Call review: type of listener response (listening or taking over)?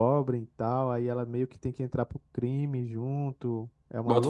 taking over